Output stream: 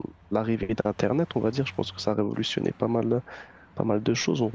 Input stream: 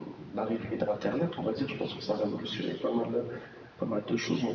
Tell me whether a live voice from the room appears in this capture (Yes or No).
No